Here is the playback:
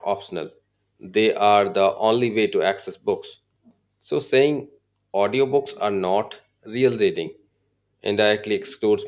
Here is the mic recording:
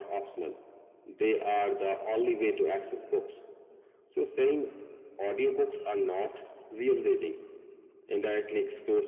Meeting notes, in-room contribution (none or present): none